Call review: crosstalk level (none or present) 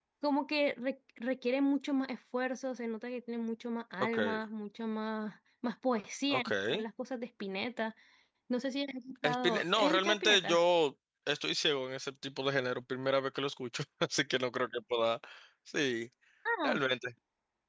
present